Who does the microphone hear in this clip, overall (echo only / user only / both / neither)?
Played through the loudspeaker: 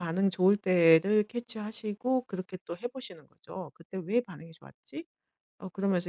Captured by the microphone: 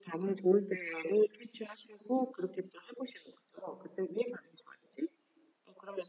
echo only